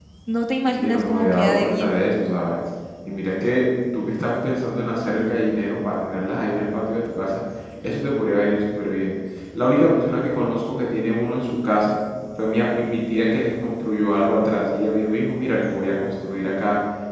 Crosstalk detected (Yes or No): Yes